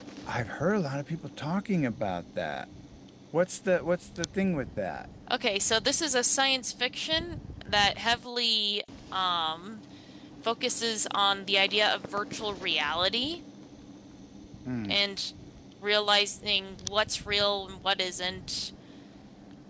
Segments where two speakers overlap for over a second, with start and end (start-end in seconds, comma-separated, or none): none